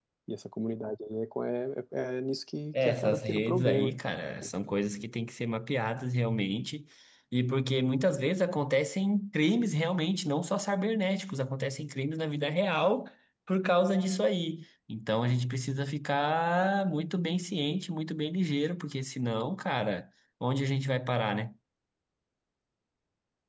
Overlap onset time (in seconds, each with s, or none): 2.7 s